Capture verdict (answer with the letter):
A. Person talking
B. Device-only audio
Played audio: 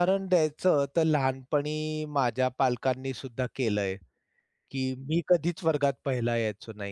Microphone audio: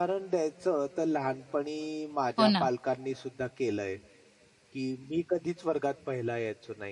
A